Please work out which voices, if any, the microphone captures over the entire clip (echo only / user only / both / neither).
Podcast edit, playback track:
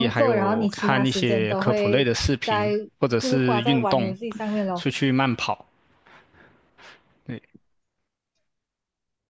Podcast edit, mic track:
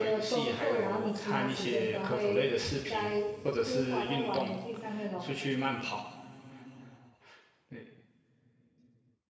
echo only